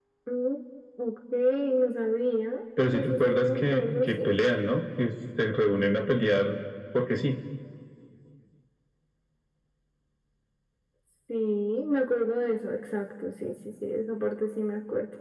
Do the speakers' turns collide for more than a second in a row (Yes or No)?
Yes